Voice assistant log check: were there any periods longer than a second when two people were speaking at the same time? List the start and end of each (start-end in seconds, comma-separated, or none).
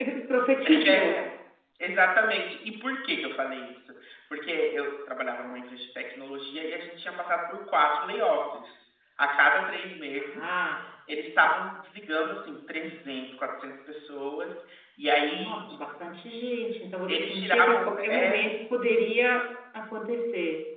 17.1-18.4